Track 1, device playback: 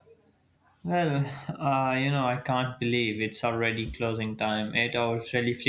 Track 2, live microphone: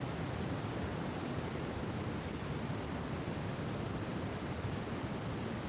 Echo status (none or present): none